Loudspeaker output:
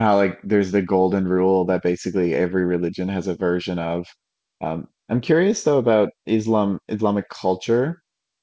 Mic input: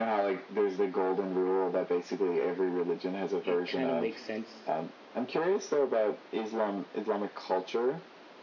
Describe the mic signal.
both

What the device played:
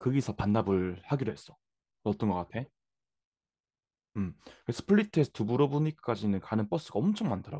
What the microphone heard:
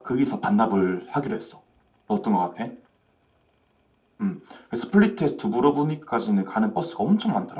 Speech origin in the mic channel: echo only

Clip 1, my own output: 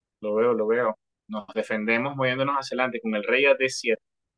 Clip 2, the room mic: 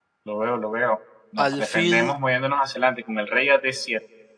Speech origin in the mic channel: both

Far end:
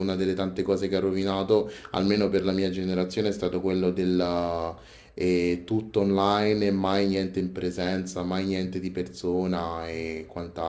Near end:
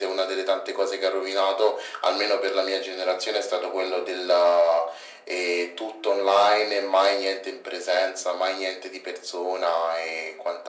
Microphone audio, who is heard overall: echo only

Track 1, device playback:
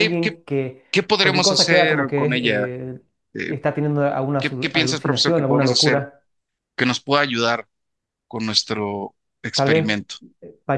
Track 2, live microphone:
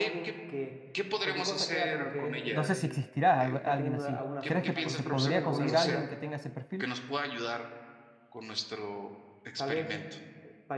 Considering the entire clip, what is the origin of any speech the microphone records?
both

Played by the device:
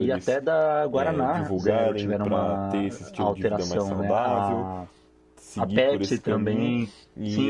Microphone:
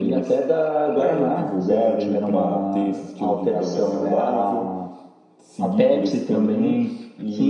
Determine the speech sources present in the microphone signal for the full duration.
echo only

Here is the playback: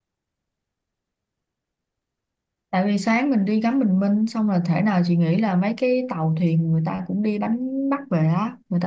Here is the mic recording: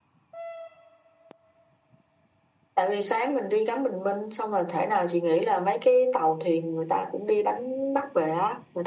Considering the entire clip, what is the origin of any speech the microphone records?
echo only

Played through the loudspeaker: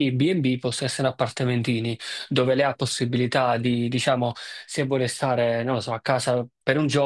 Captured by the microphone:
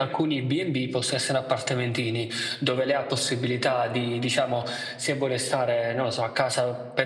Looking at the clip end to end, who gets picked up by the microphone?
echo only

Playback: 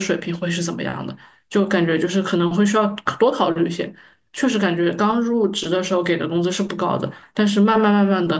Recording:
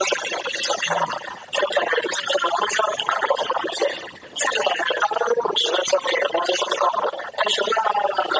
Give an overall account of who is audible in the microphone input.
both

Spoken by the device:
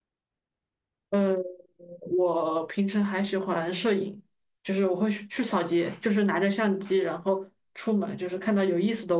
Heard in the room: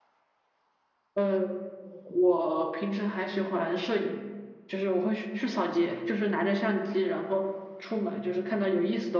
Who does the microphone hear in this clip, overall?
echo only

